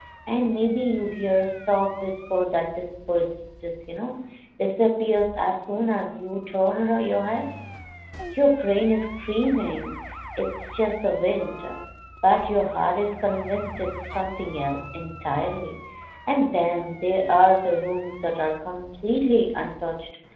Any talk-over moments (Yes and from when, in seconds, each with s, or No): No